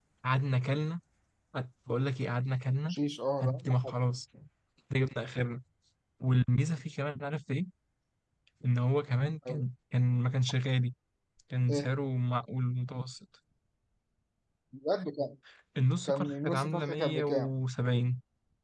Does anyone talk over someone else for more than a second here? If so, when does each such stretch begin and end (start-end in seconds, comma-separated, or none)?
16.0-17.5